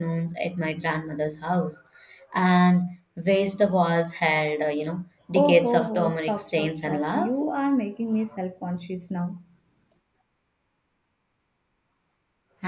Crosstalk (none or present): present